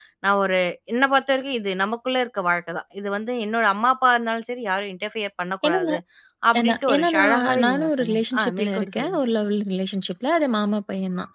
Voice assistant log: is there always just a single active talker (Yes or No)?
No